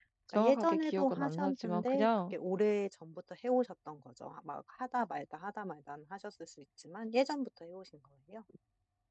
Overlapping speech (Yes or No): Yes